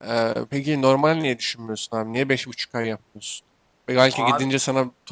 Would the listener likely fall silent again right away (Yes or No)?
Yes